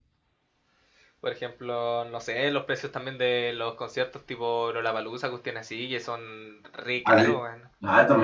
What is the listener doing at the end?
taking over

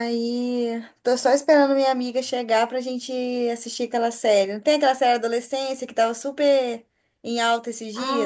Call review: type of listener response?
taking over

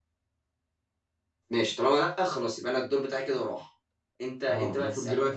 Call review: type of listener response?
taking over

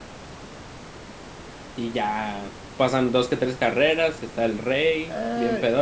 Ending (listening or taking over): taking over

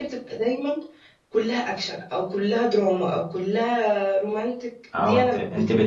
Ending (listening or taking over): taking over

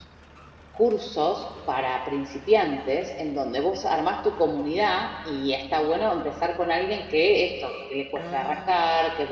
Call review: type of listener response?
listening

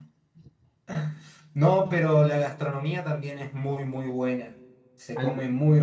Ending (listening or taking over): listening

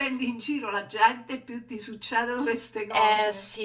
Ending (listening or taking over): taking over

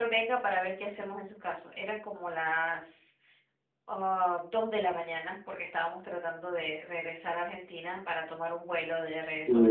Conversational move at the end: taking over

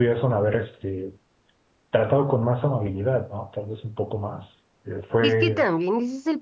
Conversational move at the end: taking over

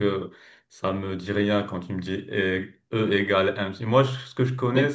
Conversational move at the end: listening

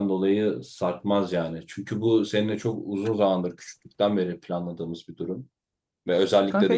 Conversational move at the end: taking over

